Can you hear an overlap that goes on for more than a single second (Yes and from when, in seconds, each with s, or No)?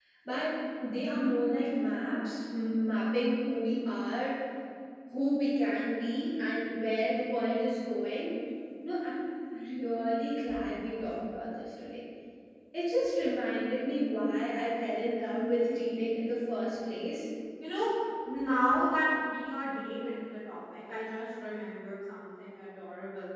No